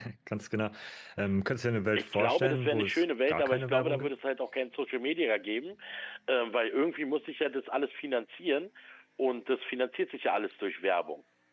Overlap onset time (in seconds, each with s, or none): 2.0 s